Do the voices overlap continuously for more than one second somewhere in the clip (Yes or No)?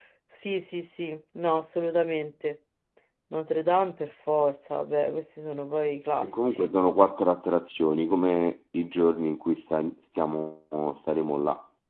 No